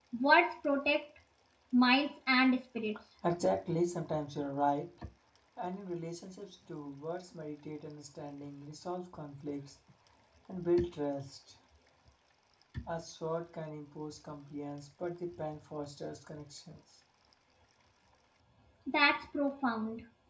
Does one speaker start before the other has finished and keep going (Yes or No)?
No